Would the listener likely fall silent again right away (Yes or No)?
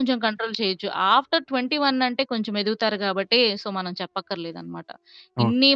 Yes